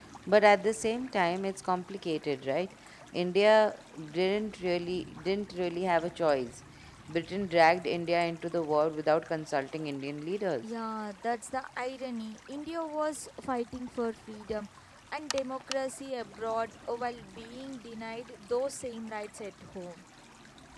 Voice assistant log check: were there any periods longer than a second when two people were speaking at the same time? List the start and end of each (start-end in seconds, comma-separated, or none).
none